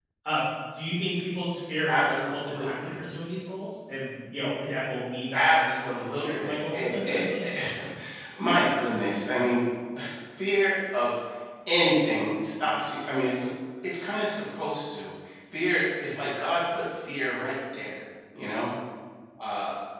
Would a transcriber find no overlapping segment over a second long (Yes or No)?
No